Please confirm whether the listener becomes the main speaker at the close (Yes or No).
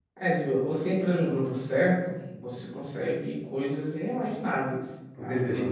Yes